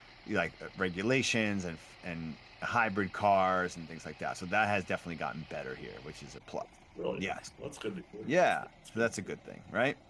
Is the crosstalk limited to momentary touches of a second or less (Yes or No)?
Yes